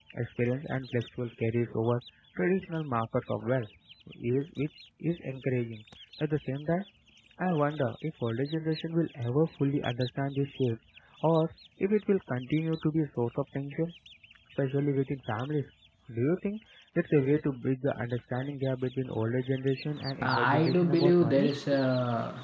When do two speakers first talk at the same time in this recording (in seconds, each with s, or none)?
20.2 s